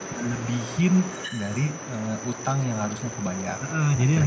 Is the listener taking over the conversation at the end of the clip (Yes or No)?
Yes